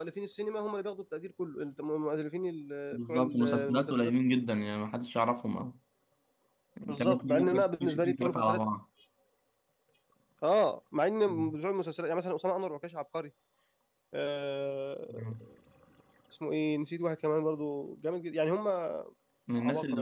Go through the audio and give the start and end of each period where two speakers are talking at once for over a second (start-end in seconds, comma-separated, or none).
2.9-4.1, 6.9-8.6